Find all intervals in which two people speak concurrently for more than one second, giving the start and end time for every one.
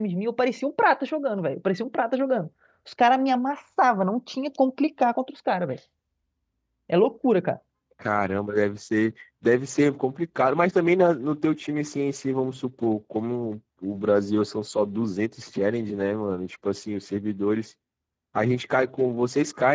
none

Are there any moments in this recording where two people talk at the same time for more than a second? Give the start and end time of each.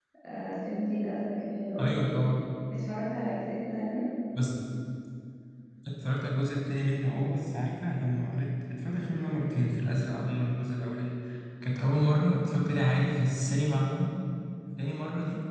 none

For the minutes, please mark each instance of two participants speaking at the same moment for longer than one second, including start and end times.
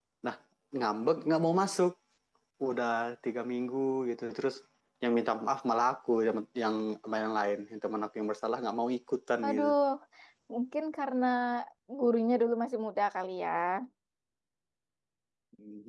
none

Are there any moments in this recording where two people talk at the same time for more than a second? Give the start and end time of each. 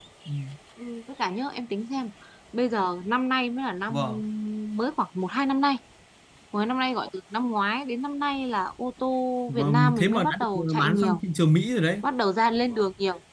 9.5-11.2

